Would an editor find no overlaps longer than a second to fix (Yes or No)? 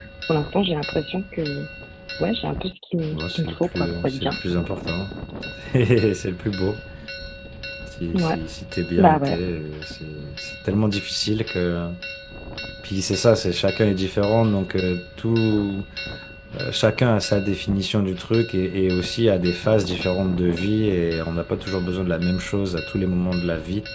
No